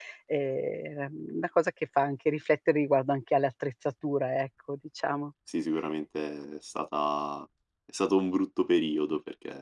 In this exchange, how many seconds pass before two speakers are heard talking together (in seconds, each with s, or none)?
none